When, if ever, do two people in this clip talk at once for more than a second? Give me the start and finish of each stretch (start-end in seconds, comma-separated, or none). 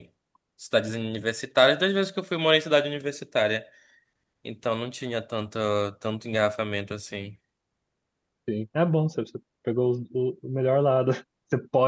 none